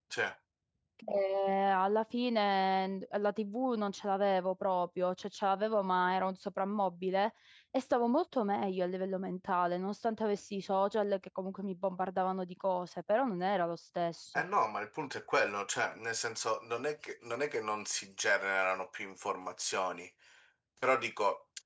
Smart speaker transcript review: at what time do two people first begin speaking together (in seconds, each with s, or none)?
none